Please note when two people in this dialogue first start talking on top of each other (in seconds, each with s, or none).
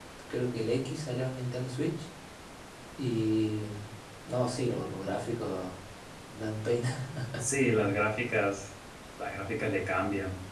none